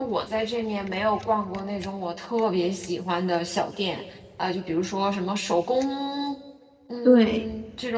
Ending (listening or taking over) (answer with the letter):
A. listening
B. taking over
A